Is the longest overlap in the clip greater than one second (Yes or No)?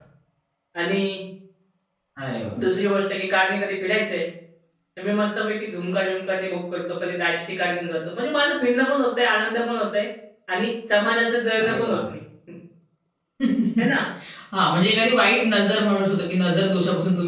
No